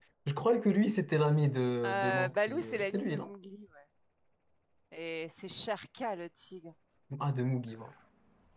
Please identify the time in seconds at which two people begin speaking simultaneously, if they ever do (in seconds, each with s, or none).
1.8 s